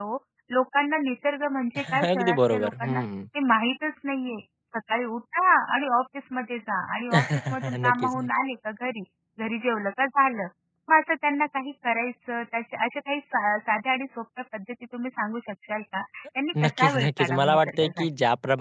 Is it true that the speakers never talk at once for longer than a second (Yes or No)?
No